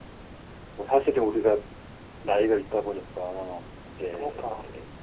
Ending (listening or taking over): listening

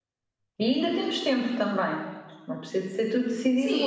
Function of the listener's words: taking over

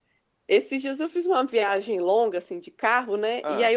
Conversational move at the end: listening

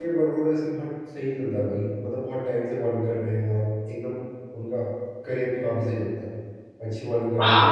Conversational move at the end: taking over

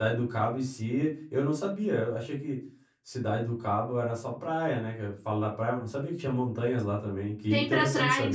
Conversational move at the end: taking over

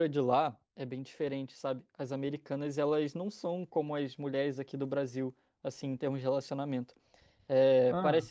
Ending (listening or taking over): listening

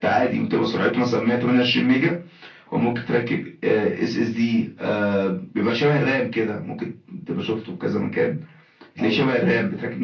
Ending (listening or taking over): listening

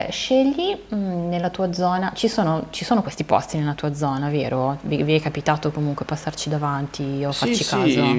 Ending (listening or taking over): taking over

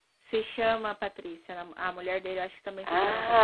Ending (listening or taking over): taking over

